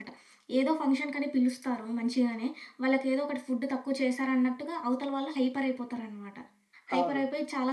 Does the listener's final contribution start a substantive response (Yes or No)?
No